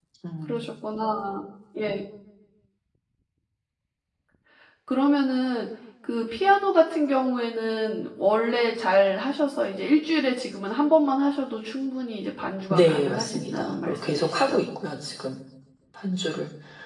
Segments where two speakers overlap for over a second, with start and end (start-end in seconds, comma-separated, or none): 12.7-14.6